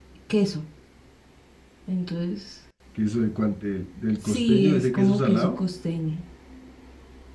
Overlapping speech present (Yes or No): Yes